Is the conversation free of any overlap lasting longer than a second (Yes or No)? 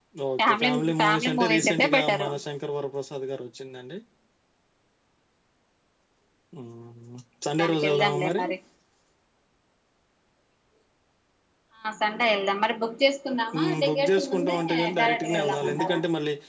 No